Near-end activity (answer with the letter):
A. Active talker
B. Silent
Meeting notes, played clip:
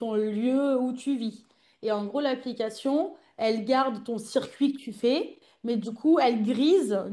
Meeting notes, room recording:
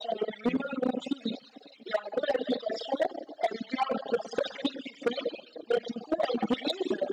A